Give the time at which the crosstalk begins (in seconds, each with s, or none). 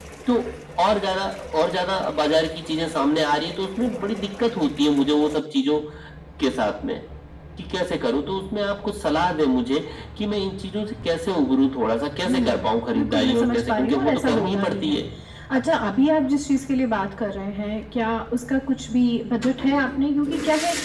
12.2 s